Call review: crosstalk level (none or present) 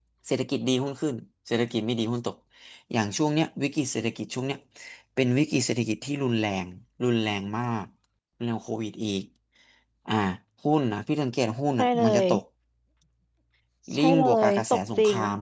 present